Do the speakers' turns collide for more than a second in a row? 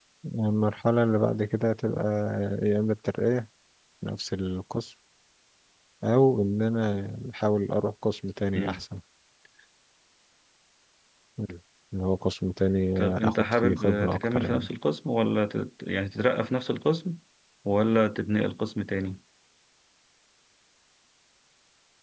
Yes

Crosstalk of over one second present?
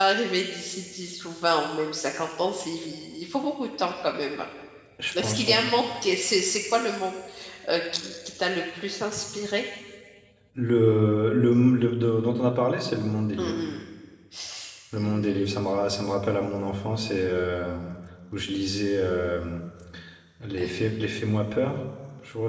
No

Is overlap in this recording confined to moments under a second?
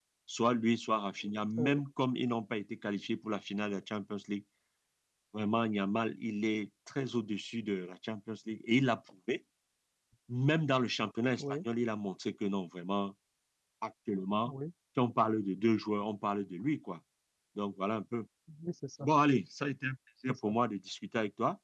Yes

